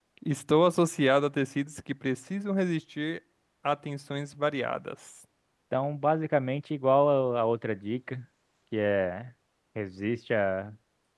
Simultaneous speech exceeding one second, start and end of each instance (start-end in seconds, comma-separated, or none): none